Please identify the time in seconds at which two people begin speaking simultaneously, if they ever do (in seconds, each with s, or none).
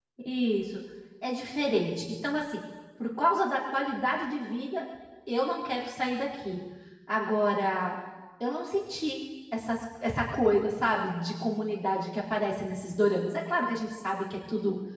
none